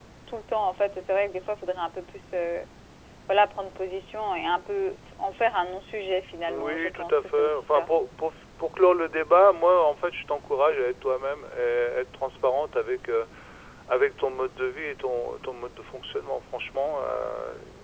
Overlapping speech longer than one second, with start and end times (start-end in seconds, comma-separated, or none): 6.5-7.9